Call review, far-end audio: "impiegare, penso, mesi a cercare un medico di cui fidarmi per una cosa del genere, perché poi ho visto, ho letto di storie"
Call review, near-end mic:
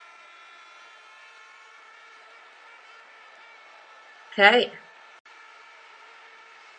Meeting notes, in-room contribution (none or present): present